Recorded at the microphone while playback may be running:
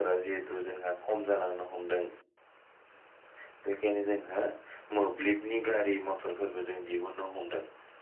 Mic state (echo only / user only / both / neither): echo only